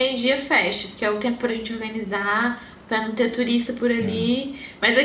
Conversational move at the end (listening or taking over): listening